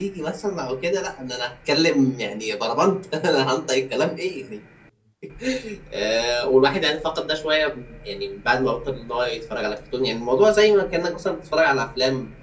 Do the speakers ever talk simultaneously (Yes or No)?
No